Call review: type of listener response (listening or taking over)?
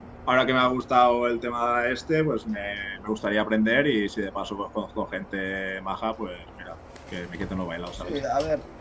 taking over